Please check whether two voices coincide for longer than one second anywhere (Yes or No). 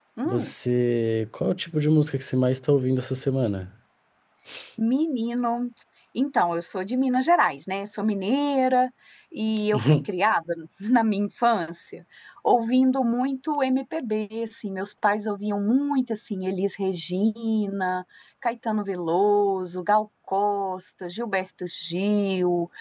No